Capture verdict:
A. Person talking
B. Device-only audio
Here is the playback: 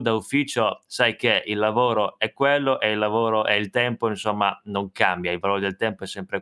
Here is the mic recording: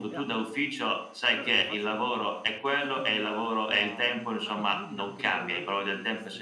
A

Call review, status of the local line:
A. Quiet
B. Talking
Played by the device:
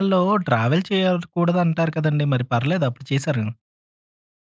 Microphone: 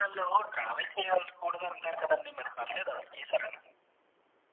A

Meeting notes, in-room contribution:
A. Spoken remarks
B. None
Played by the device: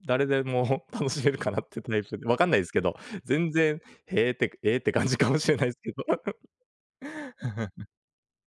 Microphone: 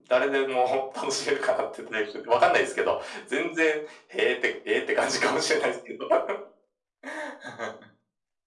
B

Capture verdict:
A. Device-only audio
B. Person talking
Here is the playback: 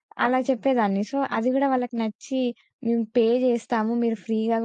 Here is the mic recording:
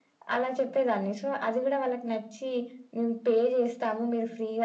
A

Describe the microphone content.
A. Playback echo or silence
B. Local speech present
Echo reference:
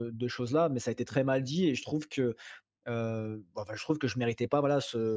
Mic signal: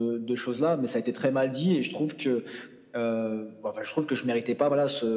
A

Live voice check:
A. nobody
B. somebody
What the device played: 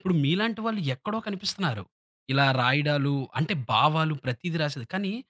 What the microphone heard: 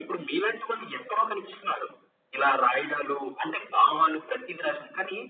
A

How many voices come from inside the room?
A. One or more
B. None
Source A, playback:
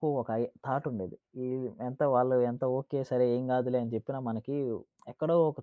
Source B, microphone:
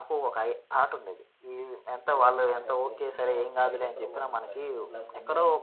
A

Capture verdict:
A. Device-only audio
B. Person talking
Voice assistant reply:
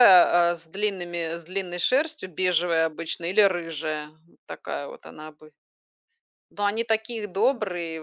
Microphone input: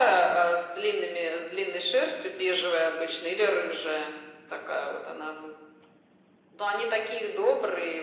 A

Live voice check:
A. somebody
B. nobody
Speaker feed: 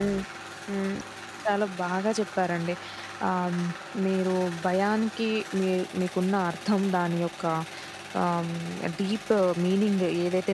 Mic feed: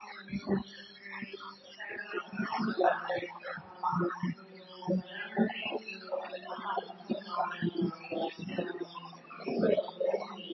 B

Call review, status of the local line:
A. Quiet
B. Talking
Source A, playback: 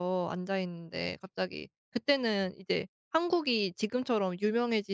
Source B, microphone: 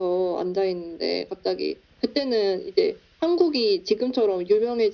A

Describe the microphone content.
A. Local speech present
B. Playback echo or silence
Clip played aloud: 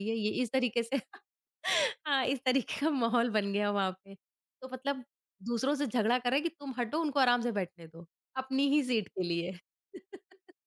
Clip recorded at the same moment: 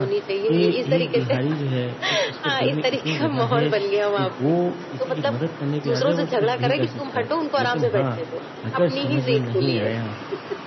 A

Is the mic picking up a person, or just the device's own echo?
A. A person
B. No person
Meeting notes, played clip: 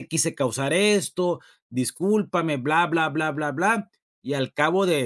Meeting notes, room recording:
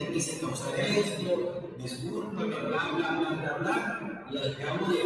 B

